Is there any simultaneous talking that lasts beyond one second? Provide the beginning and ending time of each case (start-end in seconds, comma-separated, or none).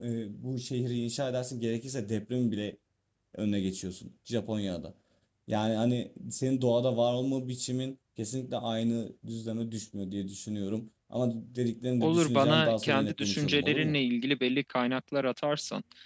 12.0-14.0